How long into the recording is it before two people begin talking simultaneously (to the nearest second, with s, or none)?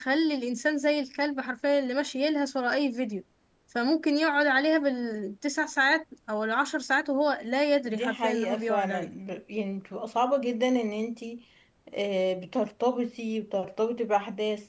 8 s